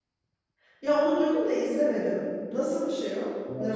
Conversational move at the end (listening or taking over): taking over